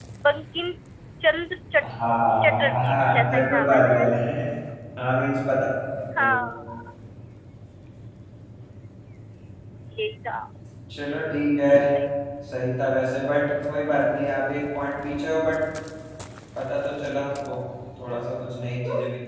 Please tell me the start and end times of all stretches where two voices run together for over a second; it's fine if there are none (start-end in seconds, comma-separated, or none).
2.4-4.2